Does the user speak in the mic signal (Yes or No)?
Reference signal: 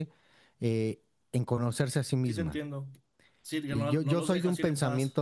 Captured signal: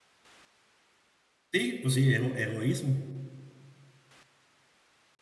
Yes